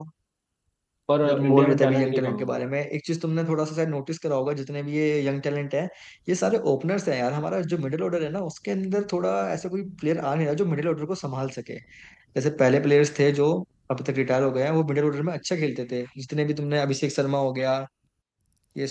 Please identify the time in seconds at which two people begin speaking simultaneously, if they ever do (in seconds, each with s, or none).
1.3 s